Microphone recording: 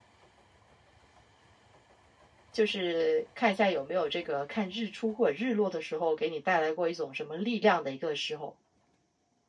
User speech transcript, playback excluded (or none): 就是看一下有没有这个看日出或者日落的时候，给你带来过一种什么力量的一个时候。